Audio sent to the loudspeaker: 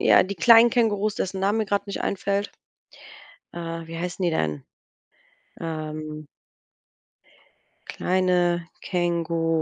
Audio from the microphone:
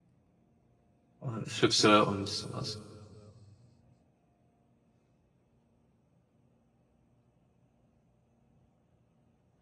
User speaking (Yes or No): Yes